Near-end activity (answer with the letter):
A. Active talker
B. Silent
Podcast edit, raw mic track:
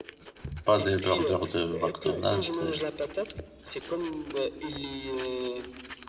A